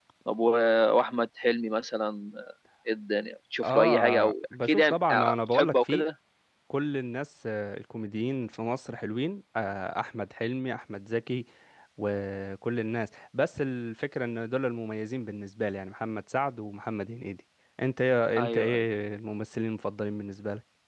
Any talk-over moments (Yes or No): Yes